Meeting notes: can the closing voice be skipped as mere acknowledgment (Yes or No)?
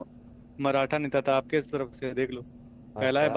Yes